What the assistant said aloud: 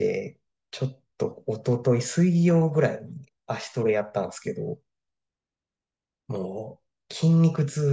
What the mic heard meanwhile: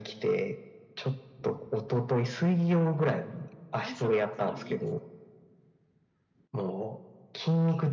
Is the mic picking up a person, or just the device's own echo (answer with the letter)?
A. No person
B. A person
B